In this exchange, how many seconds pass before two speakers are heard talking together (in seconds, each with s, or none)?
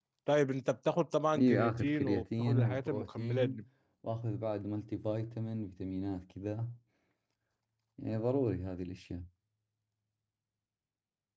1.4 s